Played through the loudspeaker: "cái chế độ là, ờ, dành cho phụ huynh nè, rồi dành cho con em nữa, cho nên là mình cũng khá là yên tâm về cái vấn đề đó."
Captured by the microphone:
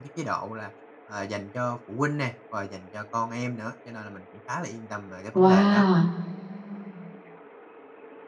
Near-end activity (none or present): present